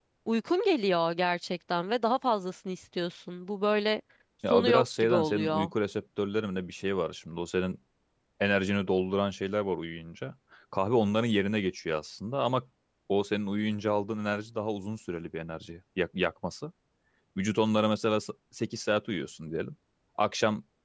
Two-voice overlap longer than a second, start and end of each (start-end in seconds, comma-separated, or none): 4.5-5.7